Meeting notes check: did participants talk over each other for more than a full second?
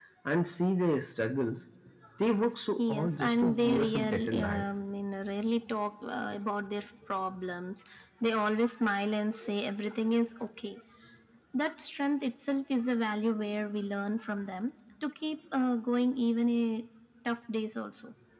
Yes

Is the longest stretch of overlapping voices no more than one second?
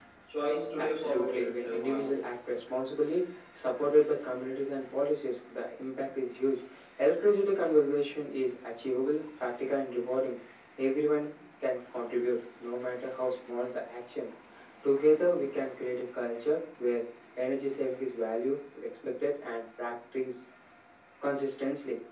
No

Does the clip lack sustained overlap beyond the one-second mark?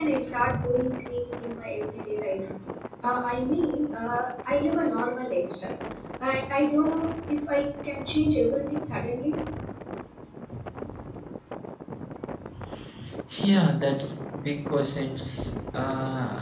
Yes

